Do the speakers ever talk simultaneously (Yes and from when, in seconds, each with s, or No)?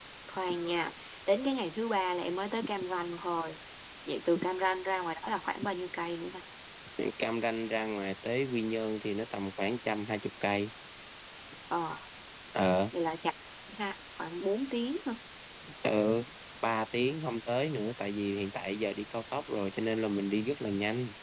No